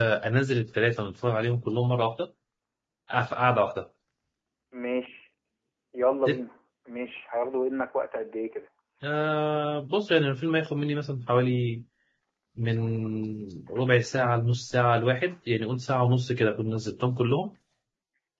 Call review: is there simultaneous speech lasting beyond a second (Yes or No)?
No